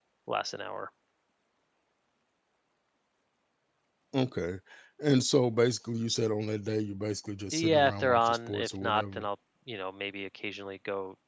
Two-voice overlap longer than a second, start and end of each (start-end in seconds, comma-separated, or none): 7.5-9.2